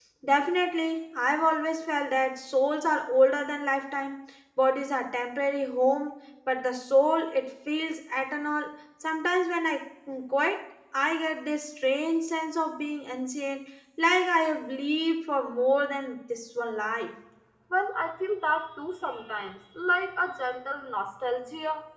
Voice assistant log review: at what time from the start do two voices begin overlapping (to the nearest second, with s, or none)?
none